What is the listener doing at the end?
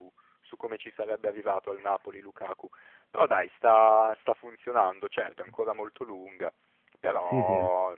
listening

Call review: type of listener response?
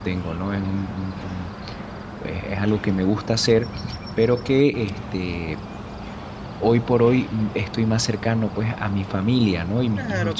listening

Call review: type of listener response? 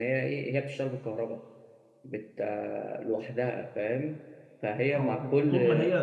taking over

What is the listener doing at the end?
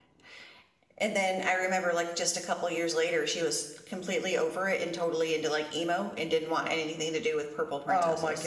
taking over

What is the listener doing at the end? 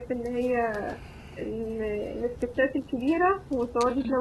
listening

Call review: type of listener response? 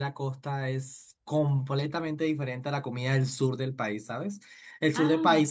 listening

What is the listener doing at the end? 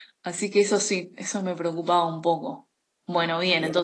listening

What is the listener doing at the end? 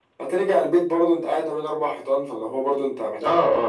taking over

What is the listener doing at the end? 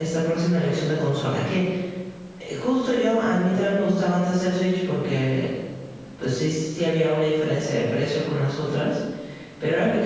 listening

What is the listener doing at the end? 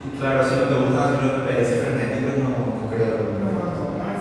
taking over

